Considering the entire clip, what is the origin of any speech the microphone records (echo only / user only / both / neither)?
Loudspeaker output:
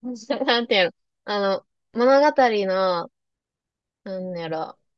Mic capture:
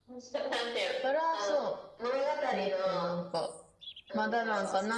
both